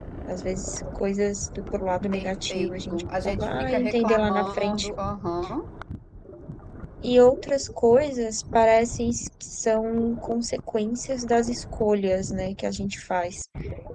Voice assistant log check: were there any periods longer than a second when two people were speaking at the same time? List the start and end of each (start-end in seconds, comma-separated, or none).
2.1-4.9